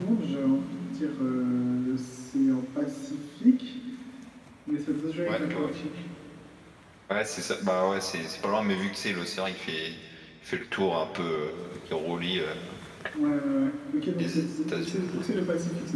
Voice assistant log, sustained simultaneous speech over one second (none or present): present